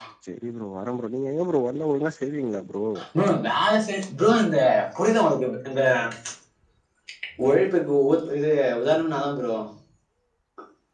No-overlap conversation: Yes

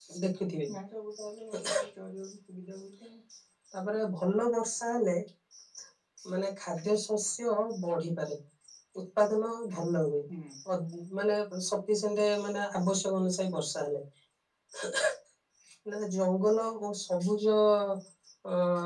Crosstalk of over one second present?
No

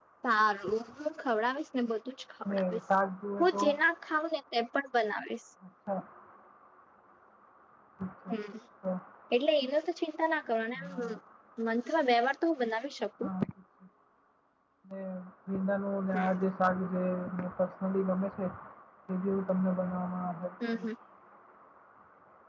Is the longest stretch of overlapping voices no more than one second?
Yes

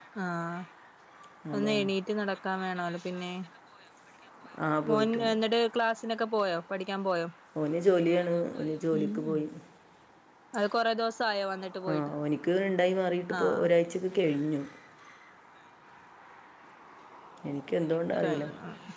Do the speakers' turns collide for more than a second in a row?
No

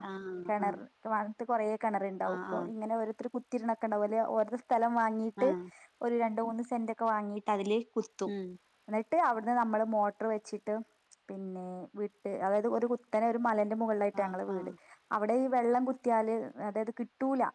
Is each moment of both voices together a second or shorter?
Yes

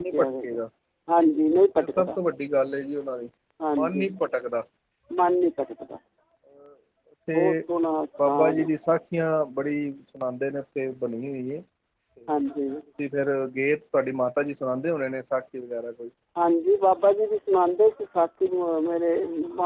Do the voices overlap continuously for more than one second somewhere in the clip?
No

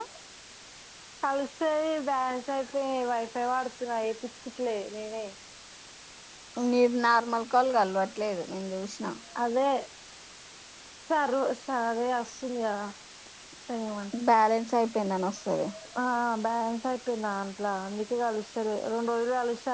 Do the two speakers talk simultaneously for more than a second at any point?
No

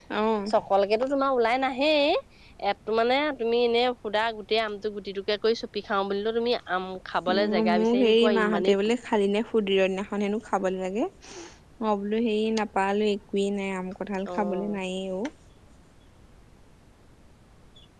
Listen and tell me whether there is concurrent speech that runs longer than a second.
Yes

